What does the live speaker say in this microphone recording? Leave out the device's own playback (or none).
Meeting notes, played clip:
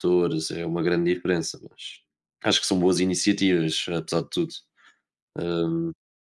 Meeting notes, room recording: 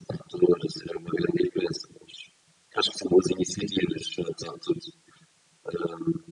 none